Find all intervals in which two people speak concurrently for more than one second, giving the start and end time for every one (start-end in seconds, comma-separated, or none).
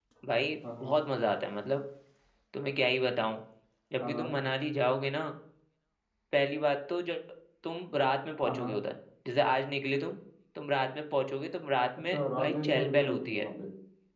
12.1-13.5